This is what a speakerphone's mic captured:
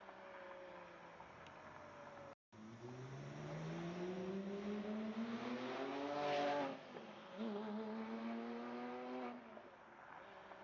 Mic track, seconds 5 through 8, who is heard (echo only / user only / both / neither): neither